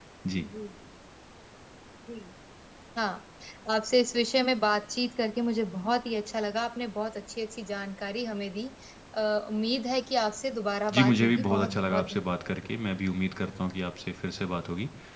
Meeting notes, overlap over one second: present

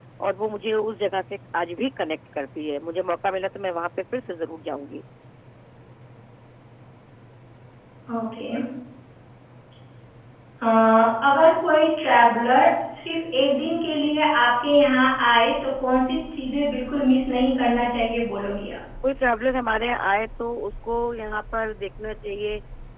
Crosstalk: none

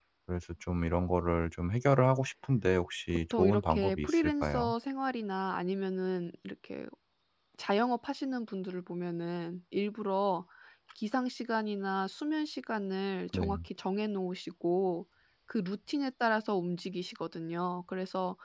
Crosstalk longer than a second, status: present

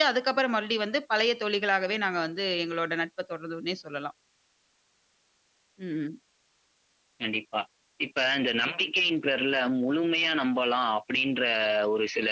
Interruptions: none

